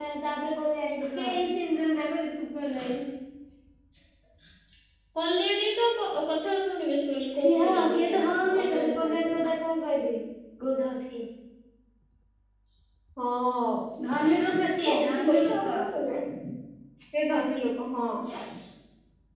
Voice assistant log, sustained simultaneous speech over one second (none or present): present